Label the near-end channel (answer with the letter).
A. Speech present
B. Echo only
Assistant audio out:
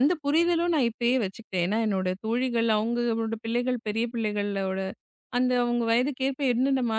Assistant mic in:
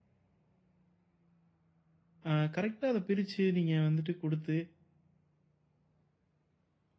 A